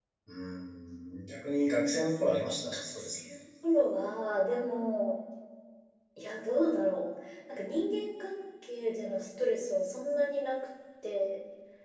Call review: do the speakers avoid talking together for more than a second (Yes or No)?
Yes